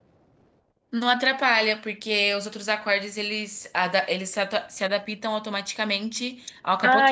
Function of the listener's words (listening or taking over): taking over